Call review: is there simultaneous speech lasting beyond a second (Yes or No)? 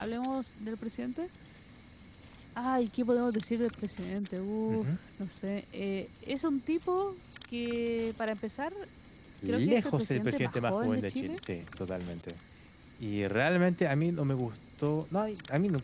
Yes